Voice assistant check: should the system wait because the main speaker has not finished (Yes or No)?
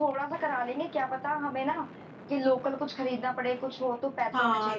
No